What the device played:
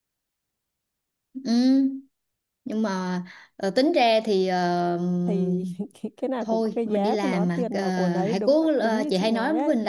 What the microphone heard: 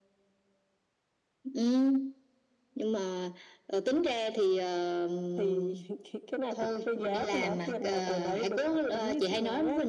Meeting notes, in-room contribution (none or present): none